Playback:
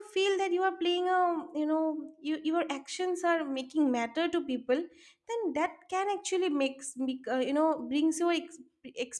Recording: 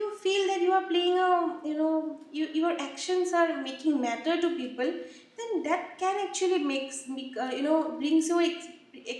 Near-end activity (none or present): none